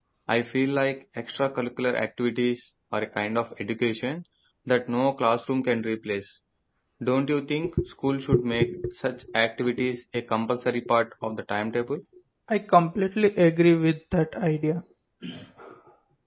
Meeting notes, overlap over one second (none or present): none